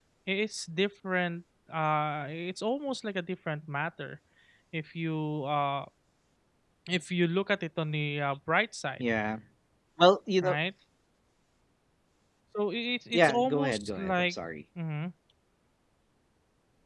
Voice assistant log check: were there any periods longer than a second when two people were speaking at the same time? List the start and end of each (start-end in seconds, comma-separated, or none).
13.1-14.4